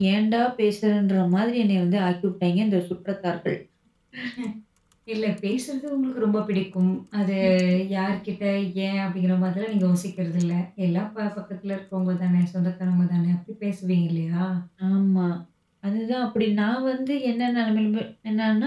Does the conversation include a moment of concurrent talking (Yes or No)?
No